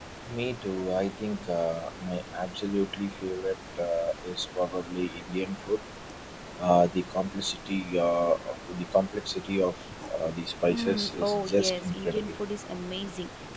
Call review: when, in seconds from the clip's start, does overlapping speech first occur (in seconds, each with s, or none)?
10.7 s